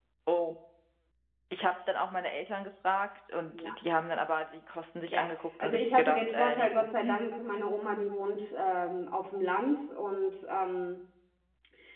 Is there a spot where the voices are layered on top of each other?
Yes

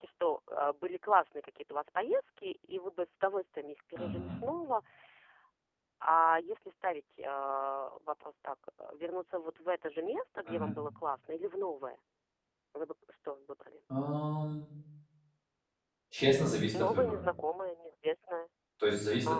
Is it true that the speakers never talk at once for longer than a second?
Yes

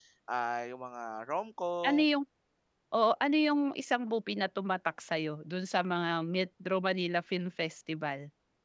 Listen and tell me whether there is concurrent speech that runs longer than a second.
No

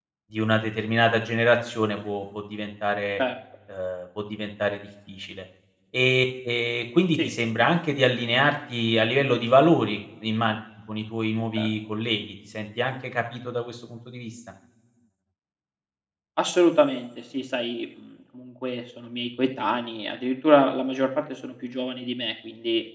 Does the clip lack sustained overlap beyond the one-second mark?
Yes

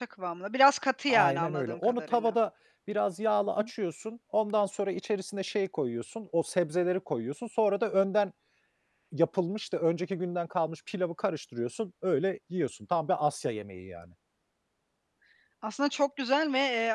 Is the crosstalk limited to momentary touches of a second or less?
No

